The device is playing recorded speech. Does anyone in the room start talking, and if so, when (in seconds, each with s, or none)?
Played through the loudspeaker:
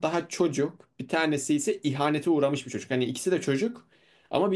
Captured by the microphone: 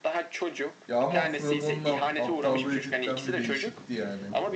0.9 s